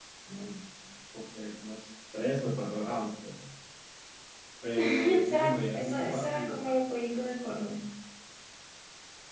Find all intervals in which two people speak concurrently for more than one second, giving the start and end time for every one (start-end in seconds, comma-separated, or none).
4.8-6.6